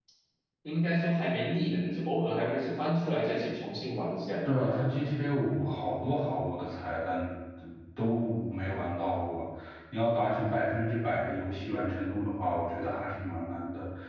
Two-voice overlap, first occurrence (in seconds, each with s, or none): none